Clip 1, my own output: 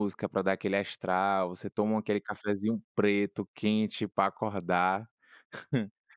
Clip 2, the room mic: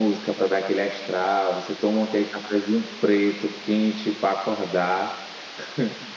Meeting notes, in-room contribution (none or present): none